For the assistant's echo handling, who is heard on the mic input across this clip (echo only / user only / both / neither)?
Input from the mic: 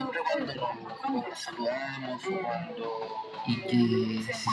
both